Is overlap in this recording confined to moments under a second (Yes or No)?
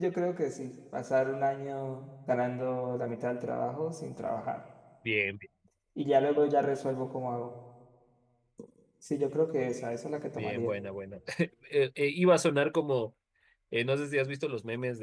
Yes